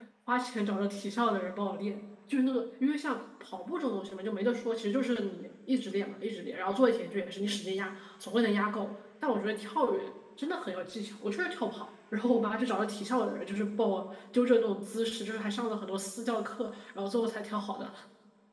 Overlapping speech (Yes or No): No